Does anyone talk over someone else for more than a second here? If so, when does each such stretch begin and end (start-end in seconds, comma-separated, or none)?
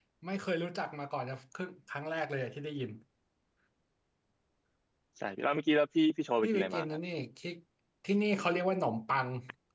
none